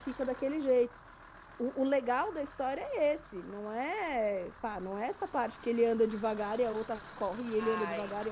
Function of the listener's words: taking over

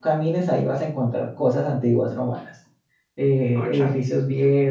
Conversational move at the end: listening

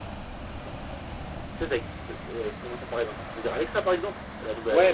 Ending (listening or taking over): taking over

